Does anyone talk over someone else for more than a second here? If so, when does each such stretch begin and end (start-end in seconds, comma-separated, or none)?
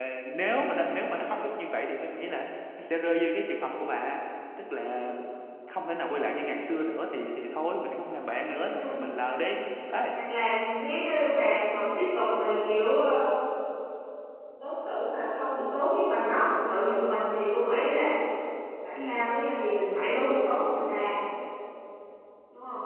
none